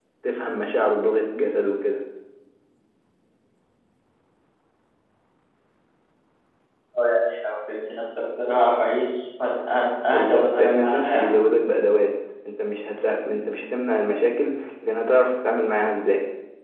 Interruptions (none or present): present